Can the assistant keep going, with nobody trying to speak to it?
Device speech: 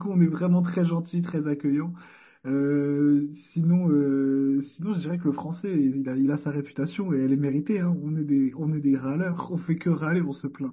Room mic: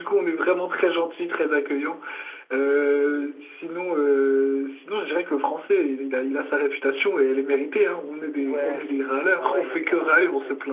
No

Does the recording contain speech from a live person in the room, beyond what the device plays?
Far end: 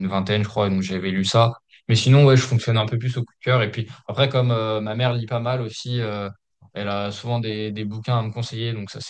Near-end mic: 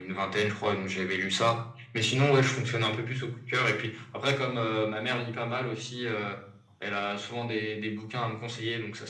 No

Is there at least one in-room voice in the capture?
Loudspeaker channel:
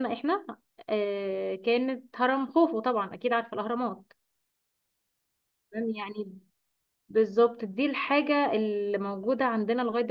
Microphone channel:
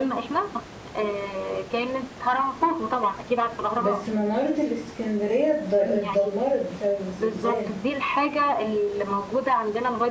Yes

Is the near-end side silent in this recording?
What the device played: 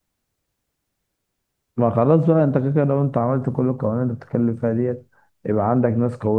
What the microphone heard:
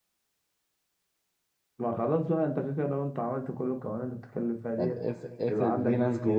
No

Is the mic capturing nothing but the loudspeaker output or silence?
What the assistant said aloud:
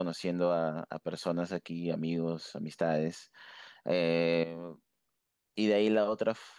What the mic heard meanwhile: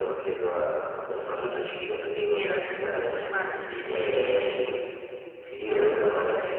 No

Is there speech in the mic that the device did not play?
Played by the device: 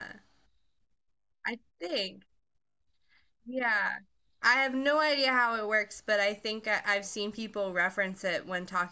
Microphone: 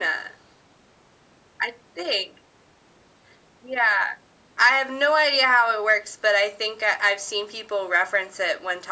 No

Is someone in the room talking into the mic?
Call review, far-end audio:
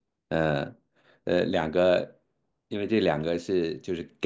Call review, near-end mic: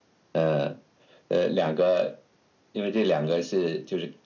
No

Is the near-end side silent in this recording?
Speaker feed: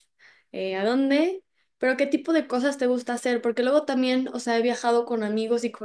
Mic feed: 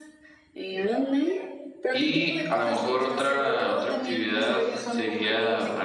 No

